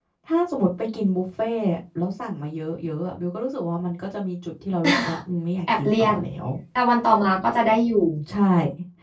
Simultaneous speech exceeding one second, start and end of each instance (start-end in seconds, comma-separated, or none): none